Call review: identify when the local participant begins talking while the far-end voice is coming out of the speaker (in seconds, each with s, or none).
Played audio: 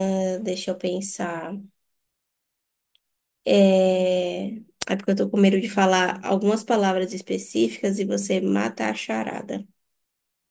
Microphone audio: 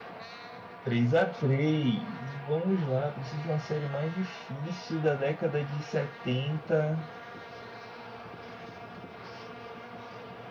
0.8 s